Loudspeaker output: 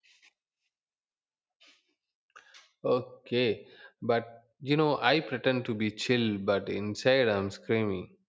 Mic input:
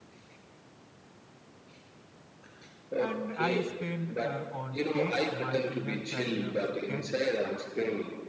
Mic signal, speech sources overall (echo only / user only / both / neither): both